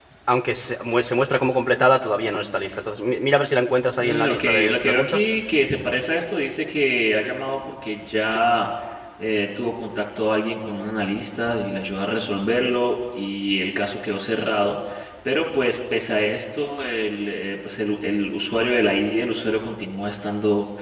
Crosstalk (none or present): present